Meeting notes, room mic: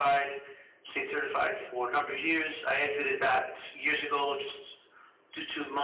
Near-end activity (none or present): none